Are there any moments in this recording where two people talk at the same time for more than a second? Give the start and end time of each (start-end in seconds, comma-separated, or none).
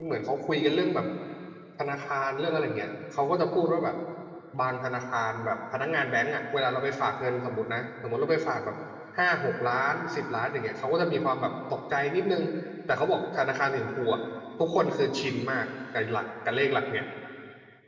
none